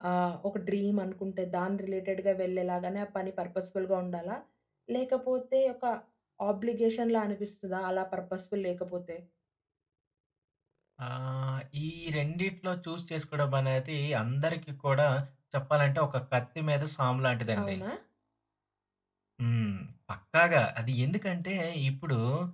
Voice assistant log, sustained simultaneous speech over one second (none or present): none